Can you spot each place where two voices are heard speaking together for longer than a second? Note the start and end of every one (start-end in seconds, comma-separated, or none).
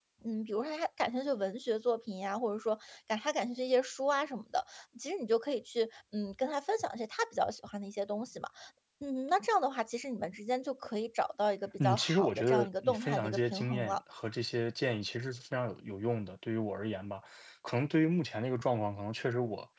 11.8-14.0